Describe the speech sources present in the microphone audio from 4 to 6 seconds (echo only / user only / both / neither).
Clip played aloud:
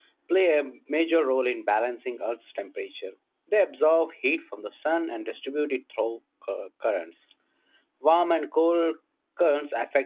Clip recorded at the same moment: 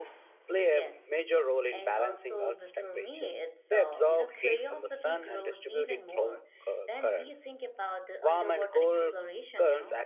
both